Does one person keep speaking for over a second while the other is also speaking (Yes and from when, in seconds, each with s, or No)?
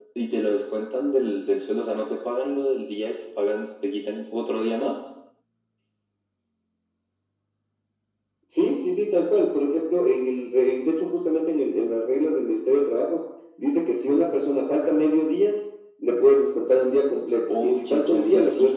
Yes, from 17.5 s